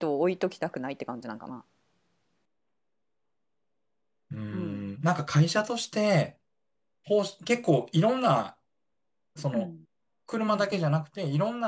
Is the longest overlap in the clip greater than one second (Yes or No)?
No